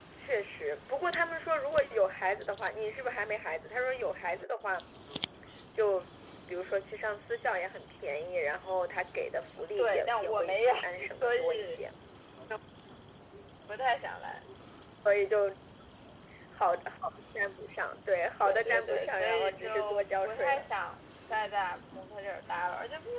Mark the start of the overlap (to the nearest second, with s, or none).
10 s